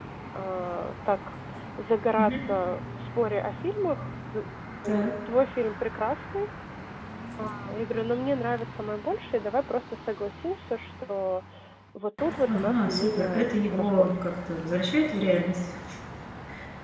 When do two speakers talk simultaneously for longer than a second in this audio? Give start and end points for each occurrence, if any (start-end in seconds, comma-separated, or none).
12.5-14.2